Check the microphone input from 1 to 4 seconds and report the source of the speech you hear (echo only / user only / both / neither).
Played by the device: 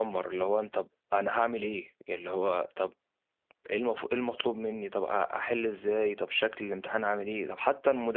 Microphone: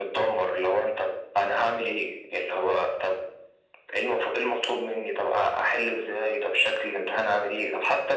echo only